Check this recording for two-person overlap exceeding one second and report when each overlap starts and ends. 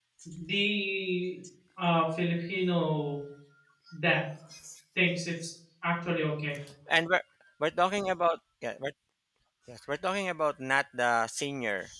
none

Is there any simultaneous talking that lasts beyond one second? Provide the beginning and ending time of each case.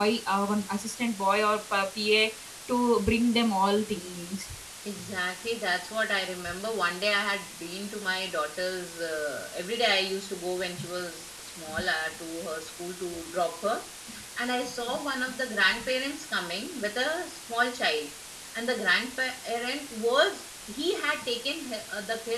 none

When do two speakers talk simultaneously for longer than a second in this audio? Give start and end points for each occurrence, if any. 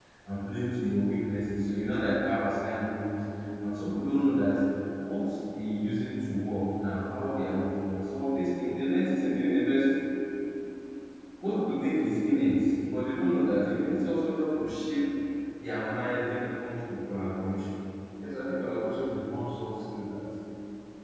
none

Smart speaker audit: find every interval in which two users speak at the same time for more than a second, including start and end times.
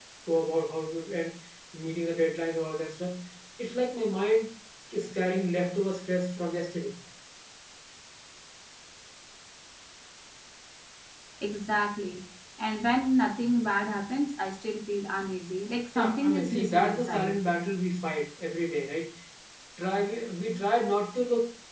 16.0-17.3

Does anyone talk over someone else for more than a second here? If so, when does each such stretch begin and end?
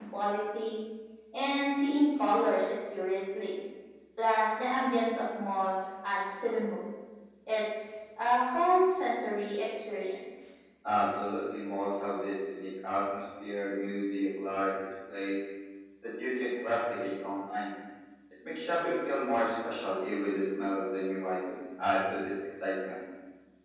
none

